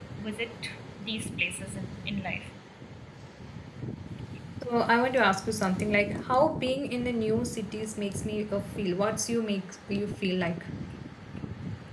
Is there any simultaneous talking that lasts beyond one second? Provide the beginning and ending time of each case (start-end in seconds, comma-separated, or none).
none